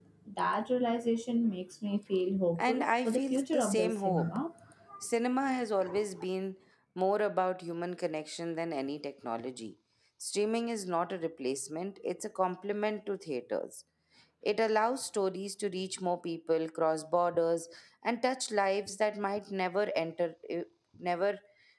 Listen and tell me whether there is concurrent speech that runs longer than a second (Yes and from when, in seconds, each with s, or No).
Yes, from 2.6 s